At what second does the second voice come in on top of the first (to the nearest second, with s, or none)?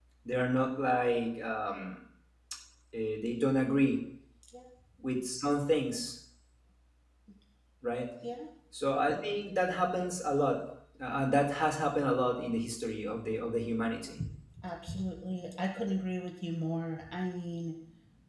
none